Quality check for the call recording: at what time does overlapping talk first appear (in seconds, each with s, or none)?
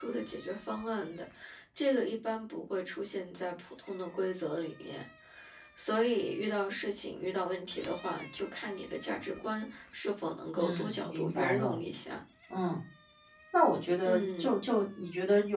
10.6 s